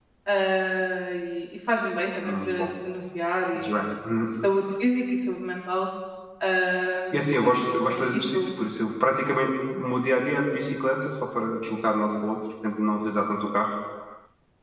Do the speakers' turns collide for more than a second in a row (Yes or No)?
Yes